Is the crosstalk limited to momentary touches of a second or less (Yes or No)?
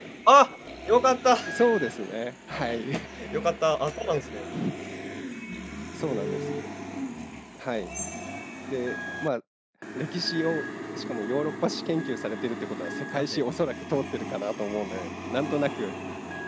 Yes